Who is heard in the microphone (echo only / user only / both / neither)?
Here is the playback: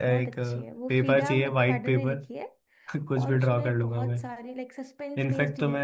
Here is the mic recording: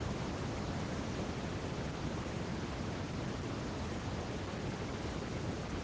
neither